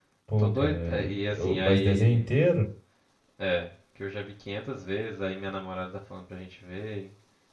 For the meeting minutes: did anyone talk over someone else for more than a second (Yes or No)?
Yes